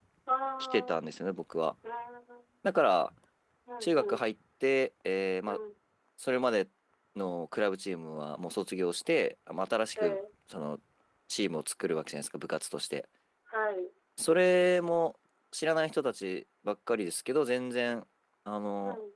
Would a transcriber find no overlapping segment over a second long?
Yes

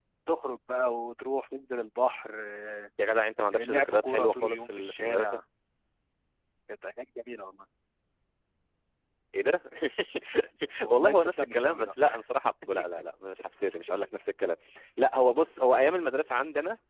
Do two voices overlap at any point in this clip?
Yes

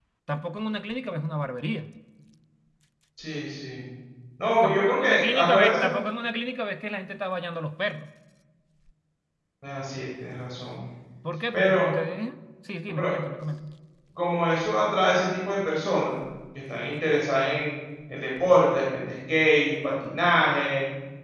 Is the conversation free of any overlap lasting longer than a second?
No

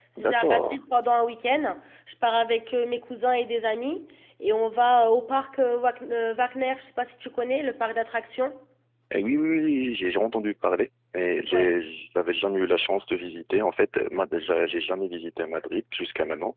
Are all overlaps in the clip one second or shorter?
Yes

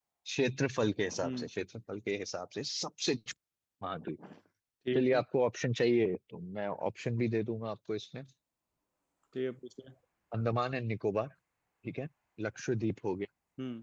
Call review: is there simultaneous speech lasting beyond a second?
No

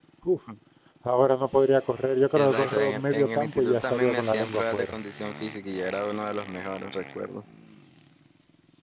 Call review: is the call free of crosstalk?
No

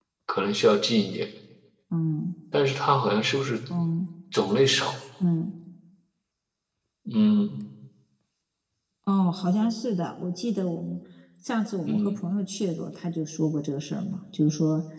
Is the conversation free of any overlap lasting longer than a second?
Yes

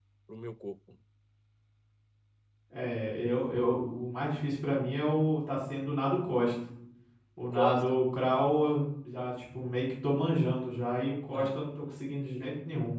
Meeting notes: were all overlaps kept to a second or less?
Yes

